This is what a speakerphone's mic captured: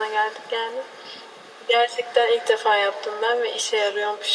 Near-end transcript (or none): none